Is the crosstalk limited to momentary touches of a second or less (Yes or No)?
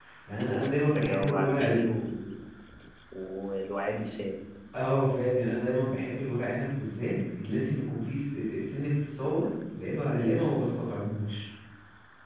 No